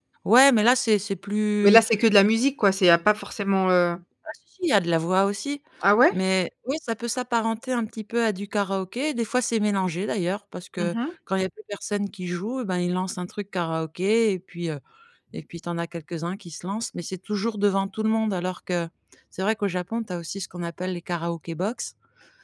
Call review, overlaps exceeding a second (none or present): none